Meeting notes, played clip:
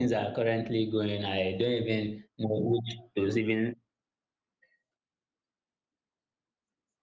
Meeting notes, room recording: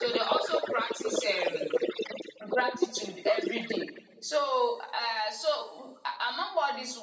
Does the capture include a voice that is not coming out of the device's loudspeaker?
Yes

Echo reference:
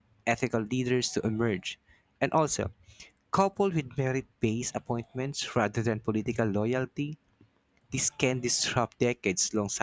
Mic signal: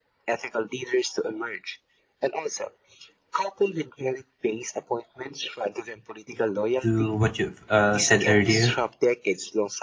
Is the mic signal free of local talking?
No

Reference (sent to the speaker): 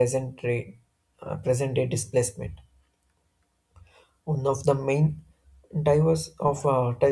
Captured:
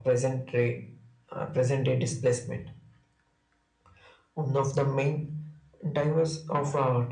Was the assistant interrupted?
No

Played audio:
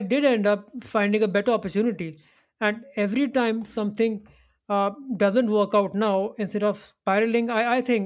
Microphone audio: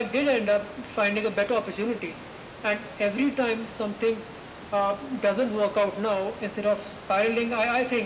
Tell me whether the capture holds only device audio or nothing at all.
Yes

